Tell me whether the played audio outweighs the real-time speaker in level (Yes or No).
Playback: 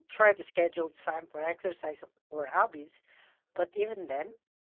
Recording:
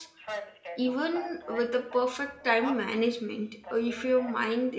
No